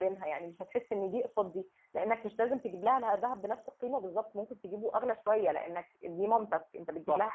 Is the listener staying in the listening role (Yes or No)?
No